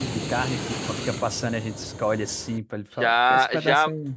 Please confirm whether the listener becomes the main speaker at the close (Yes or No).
Yes